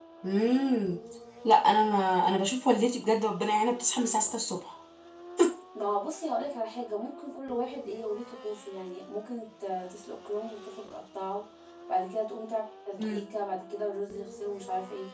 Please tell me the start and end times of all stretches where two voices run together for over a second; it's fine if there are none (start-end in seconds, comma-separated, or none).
none